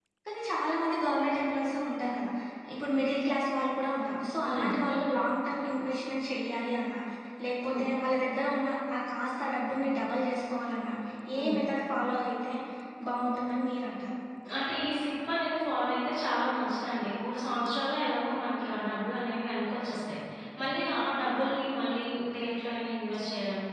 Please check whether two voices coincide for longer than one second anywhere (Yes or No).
No